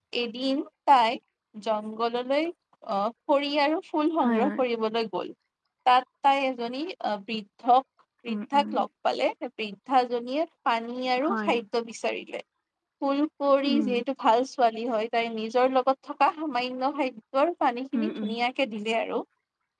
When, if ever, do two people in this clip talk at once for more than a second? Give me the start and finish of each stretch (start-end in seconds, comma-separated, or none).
none